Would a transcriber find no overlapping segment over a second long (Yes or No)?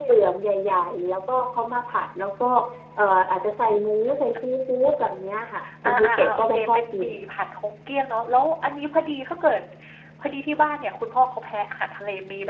No